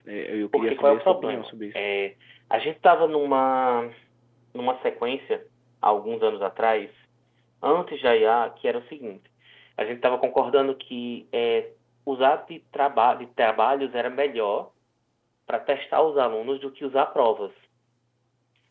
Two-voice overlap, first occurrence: 0.5 s

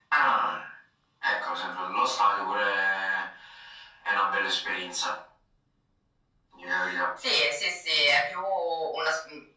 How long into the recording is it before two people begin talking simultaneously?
none

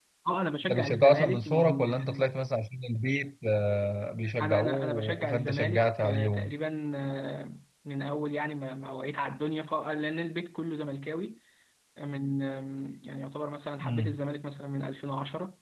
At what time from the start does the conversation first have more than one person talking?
0.7 s

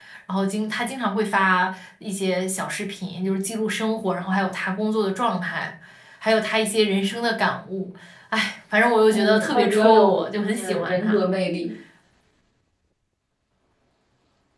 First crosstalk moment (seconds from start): 9.1 s

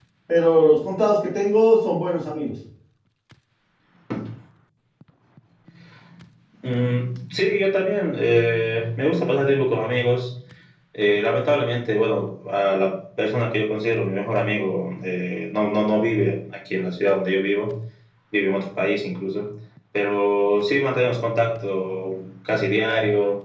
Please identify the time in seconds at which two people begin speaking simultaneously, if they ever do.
none

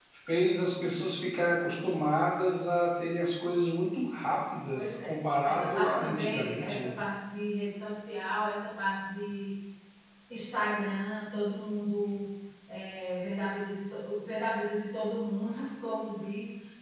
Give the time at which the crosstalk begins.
4.8 s

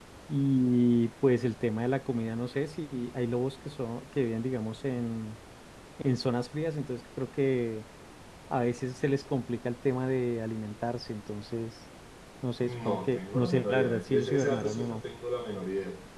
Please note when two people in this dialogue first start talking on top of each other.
12.6 s

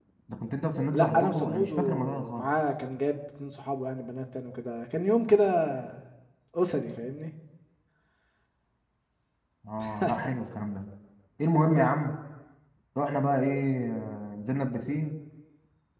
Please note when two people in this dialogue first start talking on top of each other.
0.9 s

